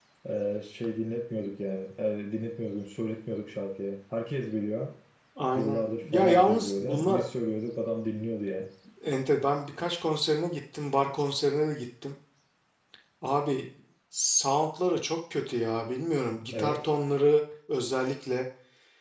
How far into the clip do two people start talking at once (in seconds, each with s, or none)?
5.5 s